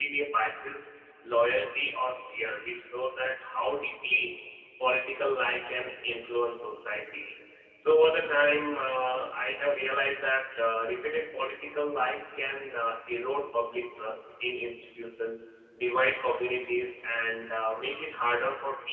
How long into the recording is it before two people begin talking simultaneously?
none

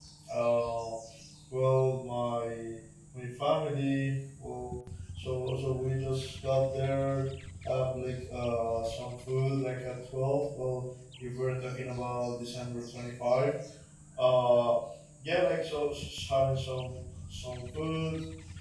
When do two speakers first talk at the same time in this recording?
none

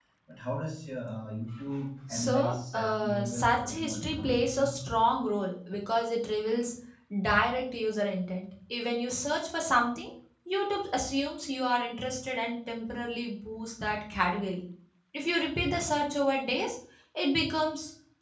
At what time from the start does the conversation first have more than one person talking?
2 s

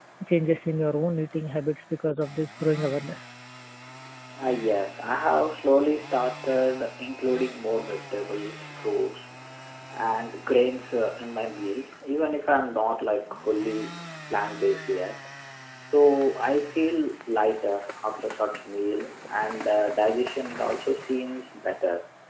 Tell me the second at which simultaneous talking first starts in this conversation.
none

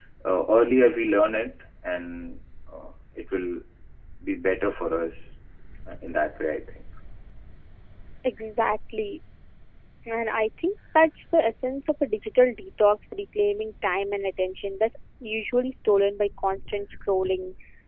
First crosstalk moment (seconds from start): none

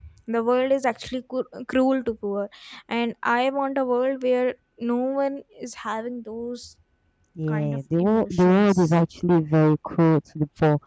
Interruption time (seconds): 7 s

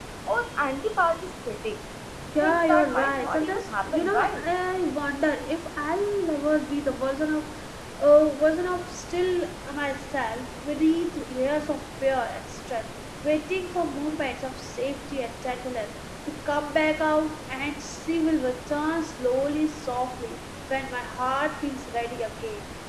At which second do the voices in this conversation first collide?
2 s

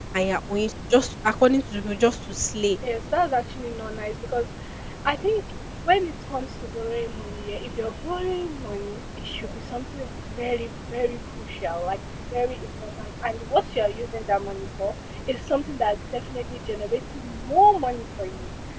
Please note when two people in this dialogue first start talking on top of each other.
none

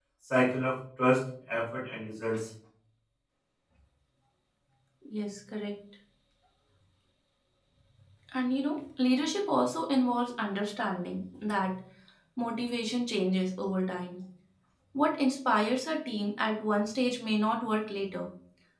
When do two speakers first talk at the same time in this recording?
none

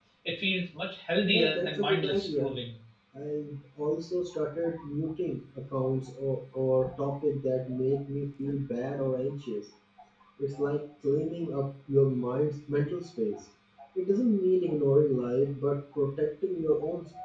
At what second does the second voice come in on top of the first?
1 s

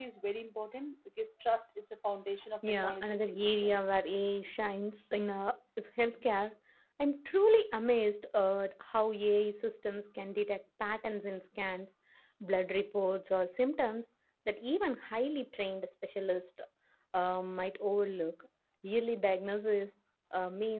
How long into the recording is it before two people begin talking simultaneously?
3 s

